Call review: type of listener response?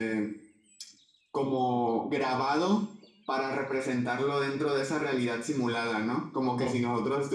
listening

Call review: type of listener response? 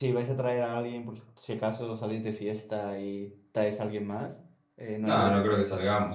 taking over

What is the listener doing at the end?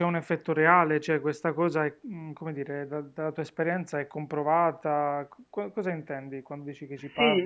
taking over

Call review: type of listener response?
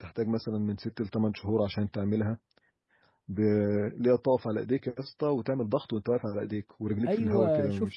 taking over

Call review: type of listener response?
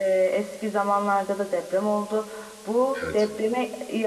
listening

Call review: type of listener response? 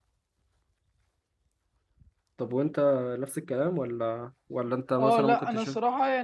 taking over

